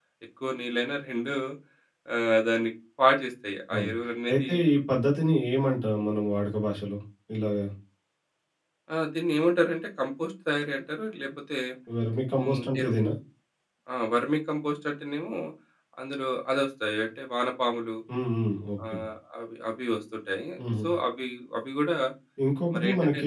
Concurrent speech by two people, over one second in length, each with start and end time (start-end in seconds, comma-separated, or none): none